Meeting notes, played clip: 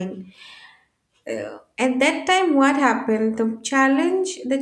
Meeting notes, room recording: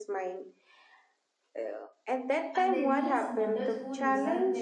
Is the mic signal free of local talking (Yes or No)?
No